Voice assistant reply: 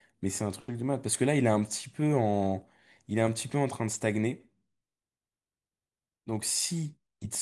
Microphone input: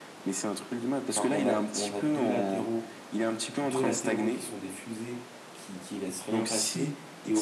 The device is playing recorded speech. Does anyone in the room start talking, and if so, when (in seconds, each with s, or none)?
1.1 s